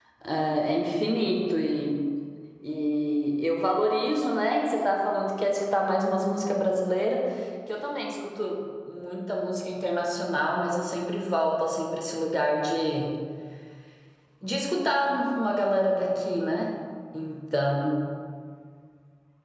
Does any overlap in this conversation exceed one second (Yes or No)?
No